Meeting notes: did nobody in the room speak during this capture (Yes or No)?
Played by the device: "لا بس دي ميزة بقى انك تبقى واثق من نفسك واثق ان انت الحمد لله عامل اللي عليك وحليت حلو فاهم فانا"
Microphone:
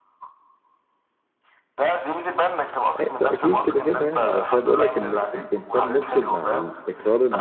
No